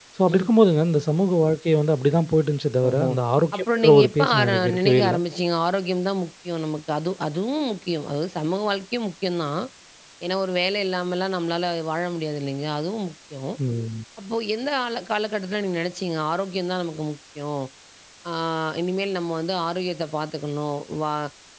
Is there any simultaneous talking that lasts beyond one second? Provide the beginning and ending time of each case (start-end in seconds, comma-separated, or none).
3.5-5.2